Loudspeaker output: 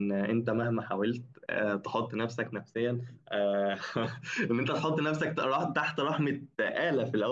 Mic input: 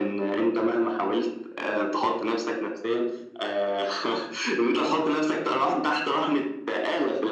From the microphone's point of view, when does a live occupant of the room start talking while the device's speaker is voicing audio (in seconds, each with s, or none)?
none